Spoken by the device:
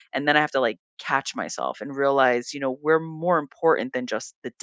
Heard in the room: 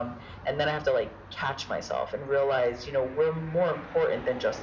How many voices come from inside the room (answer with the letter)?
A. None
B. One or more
A